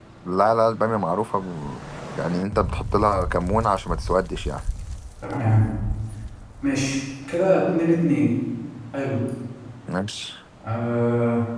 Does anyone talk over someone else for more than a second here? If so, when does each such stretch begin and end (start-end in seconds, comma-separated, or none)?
none